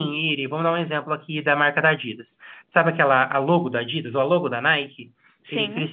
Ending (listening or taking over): listening